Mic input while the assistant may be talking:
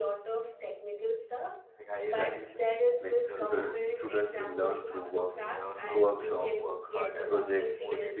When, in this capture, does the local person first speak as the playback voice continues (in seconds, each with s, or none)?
2.1 s